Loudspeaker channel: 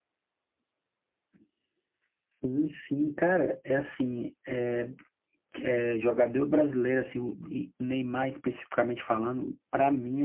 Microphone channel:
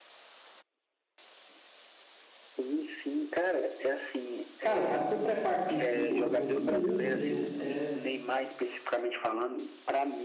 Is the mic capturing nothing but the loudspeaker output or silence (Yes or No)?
No